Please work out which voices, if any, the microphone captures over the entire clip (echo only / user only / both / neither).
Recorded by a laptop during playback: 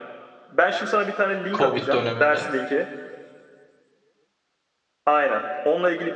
both